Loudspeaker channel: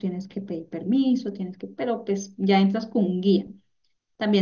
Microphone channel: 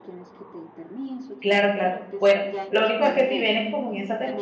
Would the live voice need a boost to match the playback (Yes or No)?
No